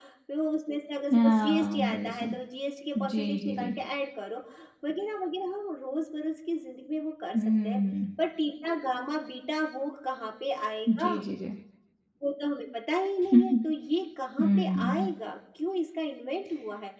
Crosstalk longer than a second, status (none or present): present